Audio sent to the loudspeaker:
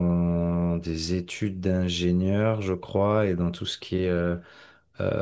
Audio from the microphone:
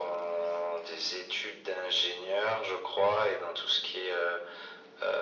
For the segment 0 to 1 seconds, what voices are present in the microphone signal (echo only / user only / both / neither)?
echo only